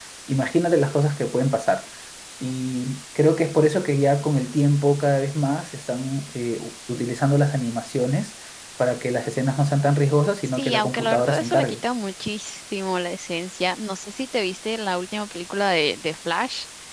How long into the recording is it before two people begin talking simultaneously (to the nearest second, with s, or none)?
10 s